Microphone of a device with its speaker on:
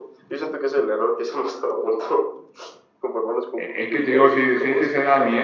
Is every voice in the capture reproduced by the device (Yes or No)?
No